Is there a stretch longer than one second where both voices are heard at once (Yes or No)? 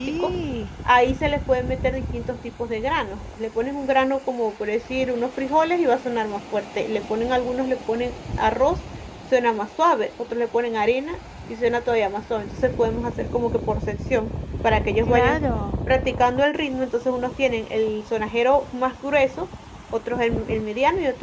No